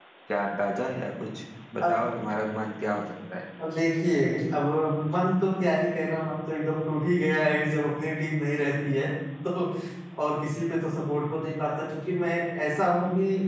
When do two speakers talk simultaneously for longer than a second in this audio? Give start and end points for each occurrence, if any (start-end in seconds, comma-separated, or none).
none